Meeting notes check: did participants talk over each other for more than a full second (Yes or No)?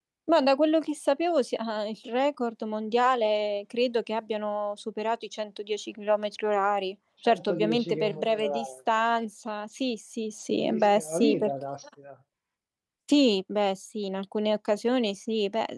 Yes